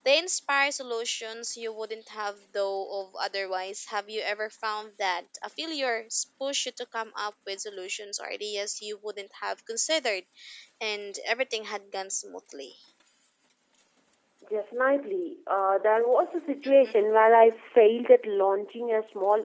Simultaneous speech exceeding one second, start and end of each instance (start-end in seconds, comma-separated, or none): none